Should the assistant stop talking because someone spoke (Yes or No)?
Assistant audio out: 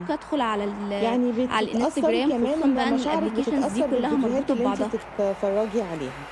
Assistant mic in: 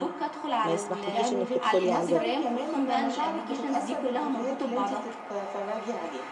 Yes